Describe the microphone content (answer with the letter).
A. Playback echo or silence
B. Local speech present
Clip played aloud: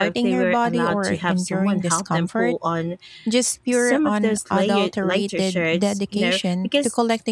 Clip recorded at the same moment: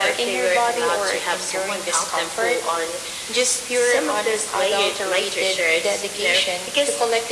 A